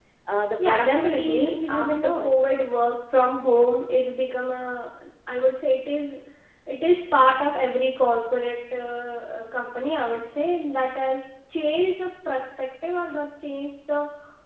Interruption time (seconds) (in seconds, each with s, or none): 0.6 s